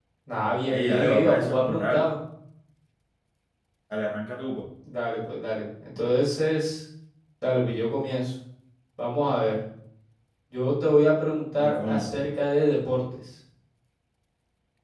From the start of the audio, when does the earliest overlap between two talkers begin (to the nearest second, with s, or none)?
1 s